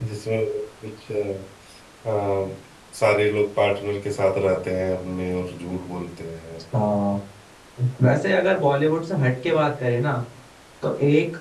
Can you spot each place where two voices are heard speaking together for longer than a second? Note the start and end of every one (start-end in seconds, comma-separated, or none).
none